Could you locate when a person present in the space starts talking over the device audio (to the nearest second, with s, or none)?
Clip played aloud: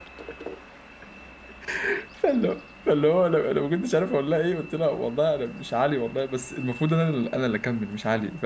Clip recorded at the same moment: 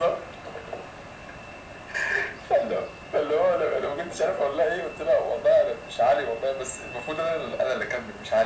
none